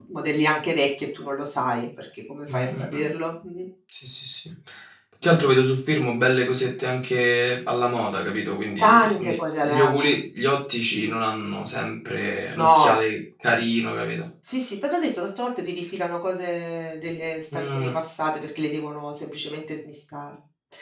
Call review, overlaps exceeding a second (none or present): present